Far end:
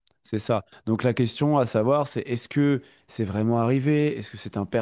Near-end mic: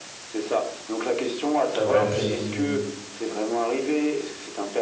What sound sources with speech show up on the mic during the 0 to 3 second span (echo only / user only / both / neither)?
both